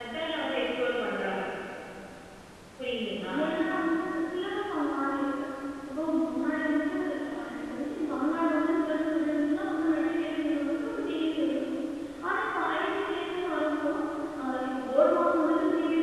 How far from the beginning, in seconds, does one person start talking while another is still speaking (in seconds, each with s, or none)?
none